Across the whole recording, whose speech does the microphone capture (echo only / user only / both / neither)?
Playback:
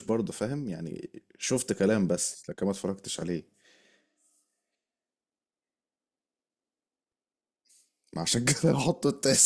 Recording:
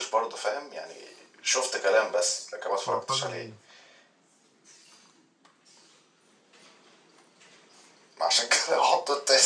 both